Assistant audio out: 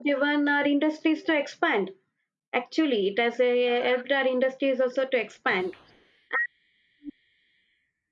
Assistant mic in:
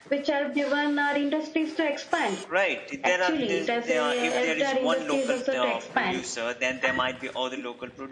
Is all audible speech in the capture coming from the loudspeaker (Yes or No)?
No